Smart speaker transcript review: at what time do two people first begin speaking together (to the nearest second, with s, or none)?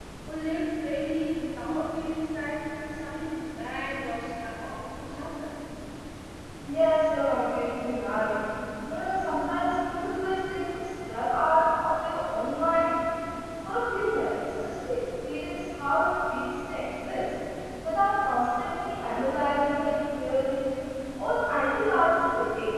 none